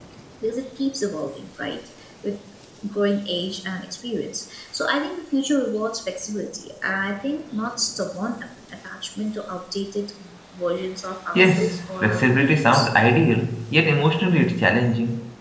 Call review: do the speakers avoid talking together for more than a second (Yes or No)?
No